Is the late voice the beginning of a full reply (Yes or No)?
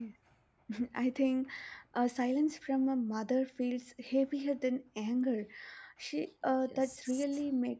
No